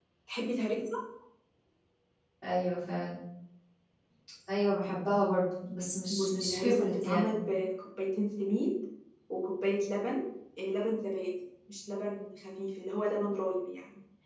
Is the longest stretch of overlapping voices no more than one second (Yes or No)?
No